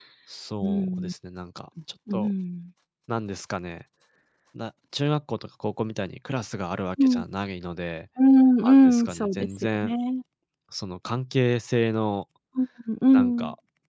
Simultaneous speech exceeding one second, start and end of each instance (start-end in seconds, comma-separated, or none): 8.6-9.9